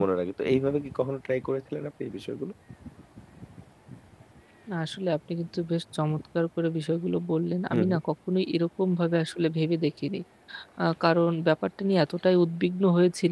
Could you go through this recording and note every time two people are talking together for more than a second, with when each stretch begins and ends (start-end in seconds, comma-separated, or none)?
none